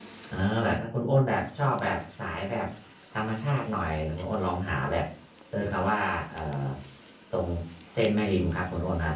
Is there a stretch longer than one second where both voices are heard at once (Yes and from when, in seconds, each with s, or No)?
No